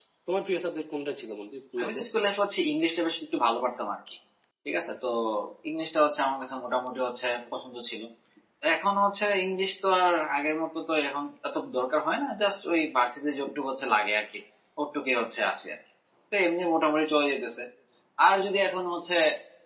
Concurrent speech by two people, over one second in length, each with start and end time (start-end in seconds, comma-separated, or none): none